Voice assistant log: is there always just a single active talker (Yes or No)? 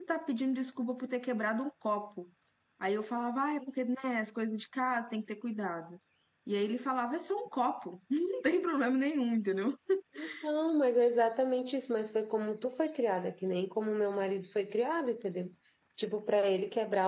Yes